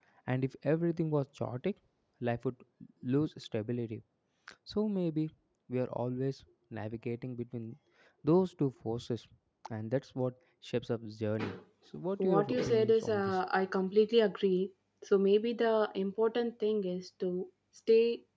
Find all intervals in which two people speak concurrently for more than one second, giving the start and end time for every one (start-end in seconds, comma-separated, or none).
12.2-13.4